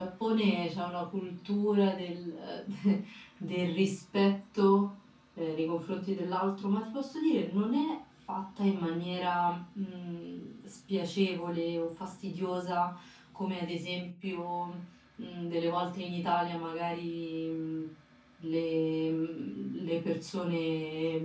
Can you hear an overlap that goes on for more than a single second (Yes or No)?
No